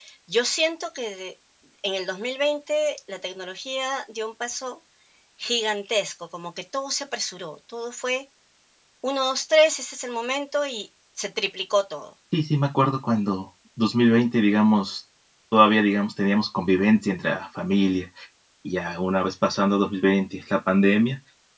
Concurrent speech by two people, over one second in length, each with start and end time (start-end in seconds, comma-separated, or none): none